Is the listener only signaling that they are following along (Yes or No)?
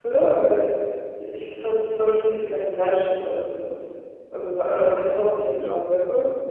No